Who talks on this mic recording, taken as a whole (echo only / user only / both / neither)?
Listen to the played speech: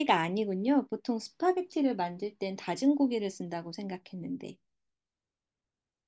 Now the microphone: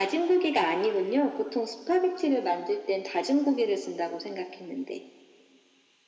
echo only